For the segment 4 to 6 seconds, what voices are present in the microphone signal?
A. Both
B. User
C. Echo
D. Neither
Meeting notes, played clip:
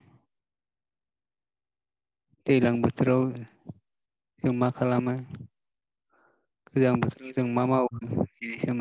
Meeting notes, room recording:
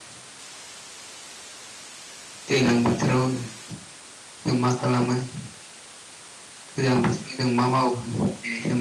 C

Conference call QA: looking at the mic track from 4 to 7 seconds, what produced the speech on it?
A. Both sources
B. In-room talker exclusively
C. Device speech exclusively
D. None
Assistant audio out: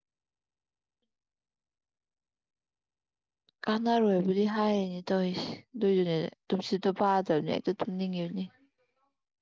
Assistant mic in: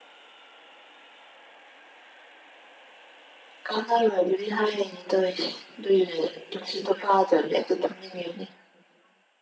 C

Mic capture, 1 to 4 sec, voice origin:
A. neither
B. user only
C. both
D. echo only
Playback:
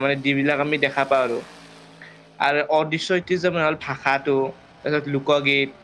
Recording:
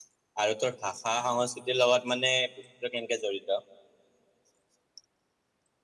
B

